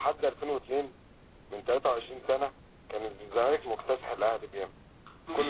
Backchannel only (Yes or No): No